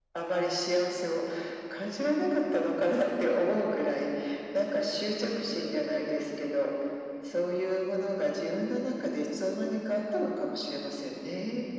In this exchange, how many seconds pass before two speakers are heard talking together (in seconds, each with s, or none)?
none